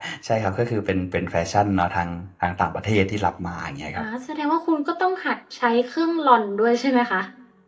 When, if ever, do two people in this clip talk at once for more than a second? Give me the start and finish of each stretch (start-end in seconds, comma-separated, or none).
none